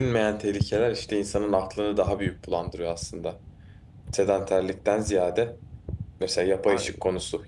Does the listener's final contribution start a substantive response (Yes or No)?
No